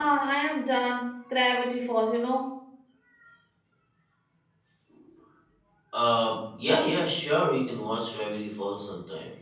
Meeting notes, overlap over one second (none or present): none